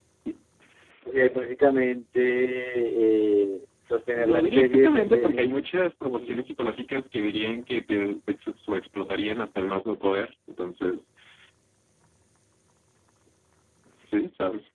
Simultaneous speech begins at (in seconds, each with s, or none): 4.1 s